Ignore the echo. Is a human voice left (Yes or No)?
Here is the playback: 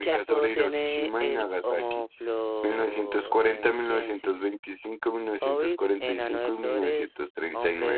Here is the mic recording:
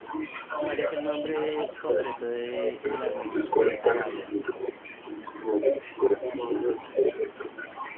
Yes